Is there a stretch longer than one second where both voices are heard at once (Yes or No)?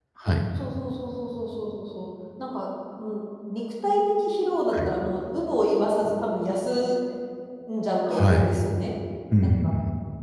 No